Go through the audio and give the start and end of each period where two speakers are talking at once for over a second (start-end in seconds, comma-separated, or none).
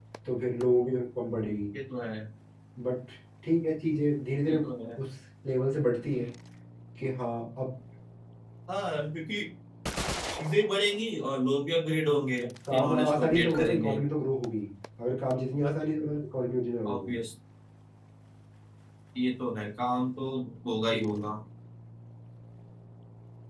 12.7-14.0